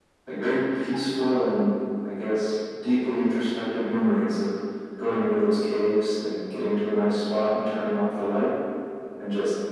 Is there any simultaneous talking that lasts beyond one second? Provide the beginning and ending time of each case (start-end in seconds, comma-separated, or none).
none